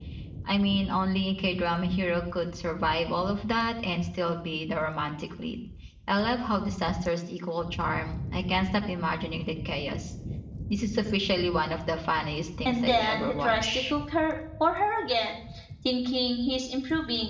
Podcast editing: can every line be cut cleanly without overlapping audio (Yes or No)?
No